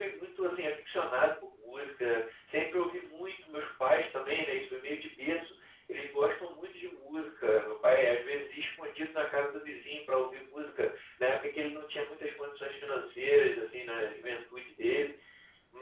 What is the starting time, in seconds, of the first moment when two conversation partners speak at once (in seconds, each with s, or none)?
none